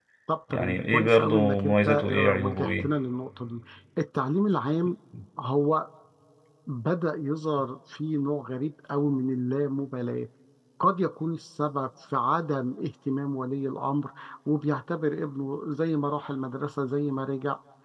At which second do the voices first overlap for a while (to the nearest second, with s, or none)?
1 s